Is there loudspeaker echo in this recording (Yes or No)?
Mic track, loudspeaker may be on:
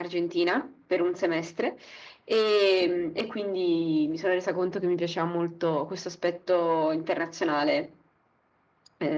Yes